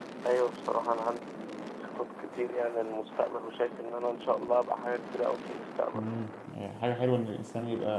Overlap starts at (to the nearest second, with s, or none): none